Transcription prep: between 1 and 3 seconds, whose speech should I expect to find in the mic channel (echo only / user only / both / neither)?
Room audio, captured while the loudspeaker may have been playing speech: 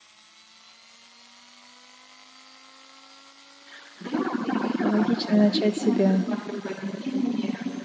neither